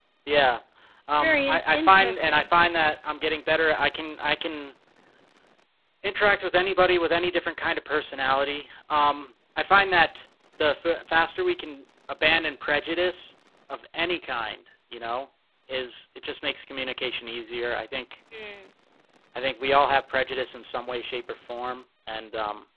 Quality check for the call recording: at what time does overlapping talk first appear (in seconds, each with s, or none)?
1.2 s